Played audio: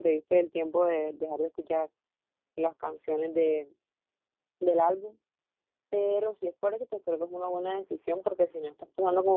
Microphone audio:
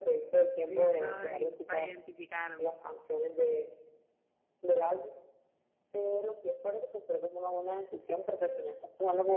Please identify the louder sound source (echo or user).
echo